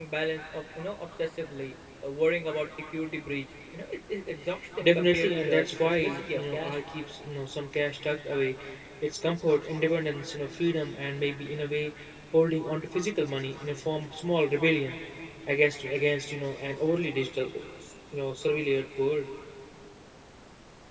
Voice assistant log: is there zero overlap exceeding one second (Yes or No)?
No